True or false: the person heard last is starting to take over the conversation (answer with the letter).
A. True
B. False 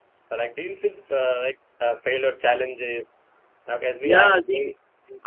A